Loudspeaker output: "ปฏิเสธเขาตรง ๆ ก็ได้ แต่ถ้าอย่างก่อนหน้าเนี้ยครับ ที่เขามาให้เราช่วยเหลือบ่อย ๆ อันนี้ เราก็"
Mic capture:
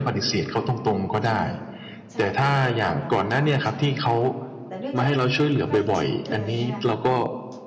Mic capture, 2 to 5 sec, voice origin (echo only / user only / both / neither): both